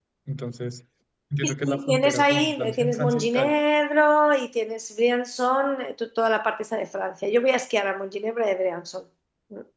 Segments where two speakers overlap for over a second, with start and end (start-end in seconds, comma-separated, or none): 1.4-3.6